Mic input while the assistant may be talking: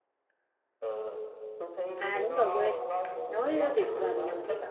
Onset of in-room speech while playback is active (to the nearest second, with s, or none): 2 s